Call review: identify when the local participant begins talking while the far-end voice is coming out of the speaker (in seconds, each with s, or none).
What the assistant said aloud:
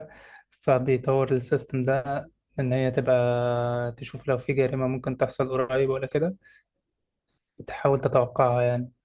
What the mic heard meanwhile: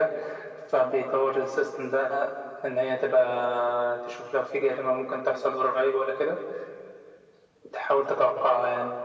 none